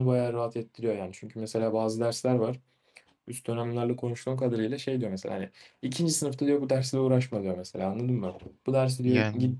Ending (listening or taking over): listening